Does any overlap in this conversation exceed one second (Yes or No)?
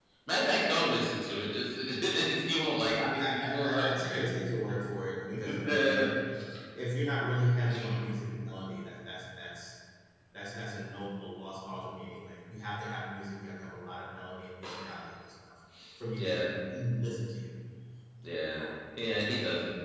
Yes